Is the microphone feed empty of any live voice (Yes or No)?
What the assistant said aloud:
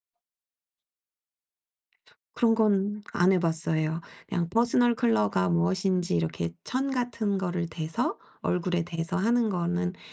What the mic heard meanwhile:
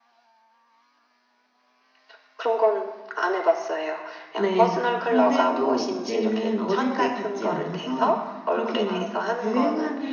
No